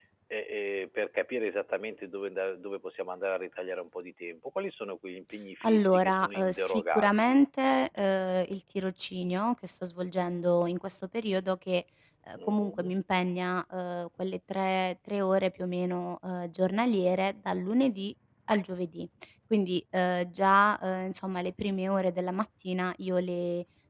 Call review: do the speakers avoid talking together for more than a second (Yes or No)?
No